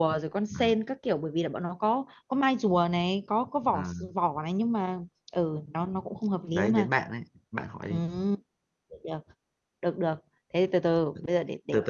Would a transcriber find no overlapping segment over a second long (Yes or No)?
Yes